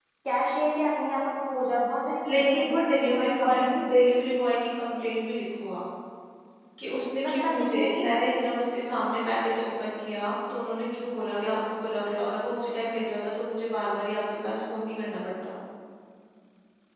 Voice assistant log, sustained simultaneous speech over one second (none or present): present